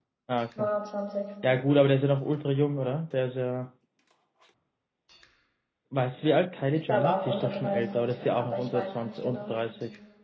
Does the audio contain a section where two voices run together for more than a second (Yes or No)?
Yes